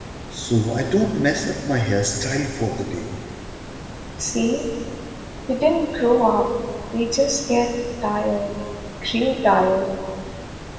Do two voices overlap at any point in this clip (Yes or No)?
No